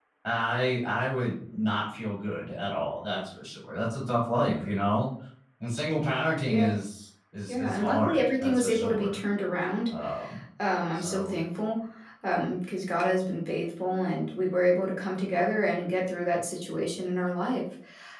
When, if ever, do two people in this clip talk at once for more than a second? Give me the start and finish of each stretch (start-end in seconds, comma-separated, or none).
7.5-9.2